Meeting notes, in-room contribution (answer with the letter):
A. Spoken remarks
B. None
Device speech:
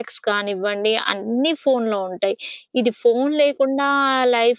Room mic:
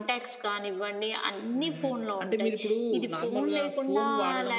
A